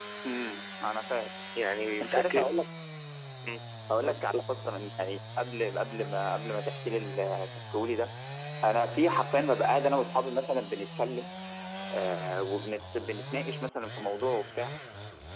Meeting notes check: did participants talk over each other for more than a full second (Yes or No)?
No